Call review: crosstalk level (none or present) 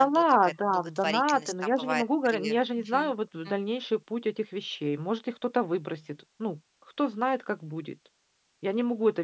present